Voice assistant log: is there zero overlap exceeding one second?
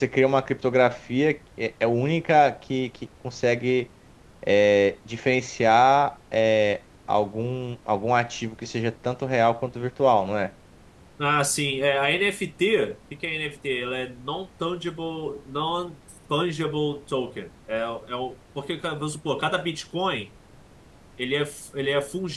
Yes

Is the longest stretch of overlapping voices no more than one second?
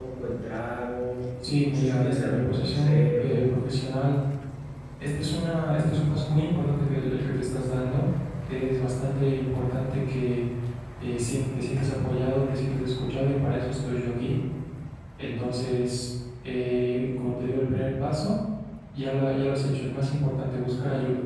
No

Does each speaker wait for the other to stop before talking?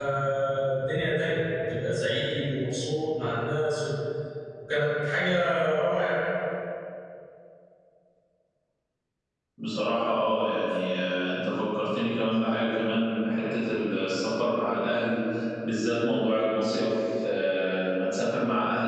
Yes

